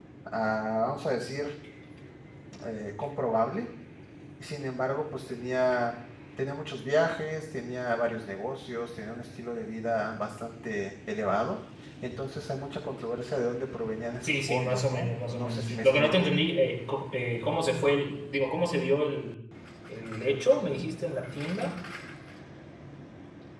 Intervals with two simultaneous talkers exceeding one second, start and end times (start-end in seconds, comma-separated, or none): 14.2-16.3